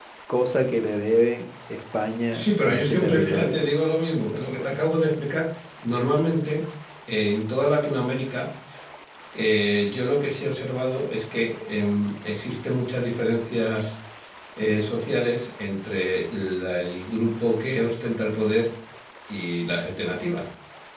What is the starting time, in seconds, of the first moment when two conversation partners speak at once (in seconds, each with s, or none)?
2.3 s